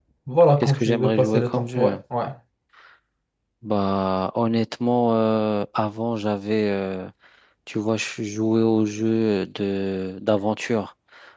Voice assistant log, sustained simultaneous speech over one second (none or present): present